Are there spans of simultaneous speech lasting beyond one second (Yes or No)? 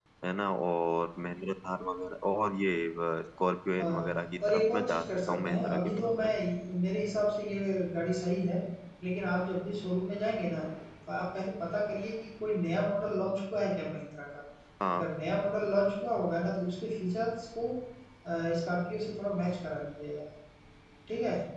Yes